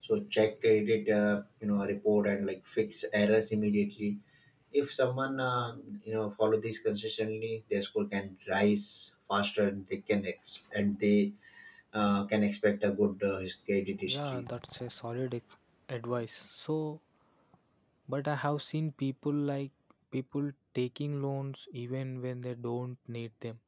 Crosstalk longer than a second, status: none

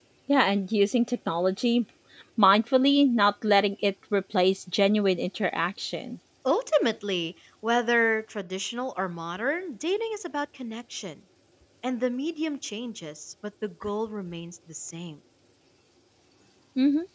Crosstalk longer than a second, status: none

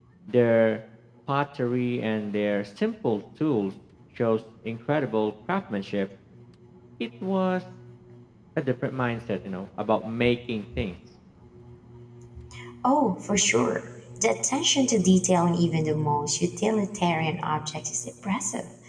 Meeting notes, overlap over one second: none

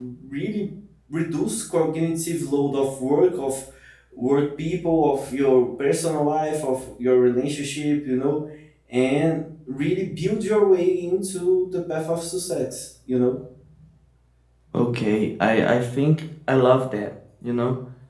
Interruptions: none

